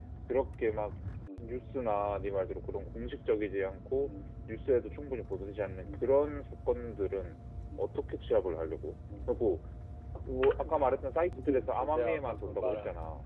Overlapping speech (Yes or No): Yes